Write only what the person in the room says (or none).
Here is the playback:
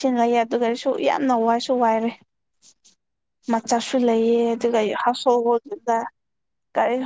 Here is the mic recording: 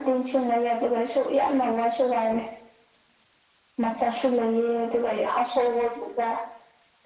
none